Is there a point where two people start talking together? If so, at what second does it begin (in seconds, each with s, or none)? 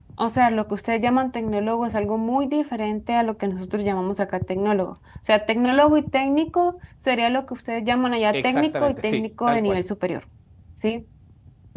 8.3 s